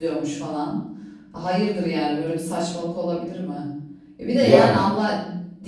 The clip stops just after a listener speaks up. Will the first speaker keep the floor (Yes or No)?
Yes